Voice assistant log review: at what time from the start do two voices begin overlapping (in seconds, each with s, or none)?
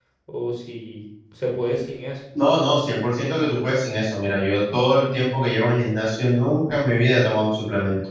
none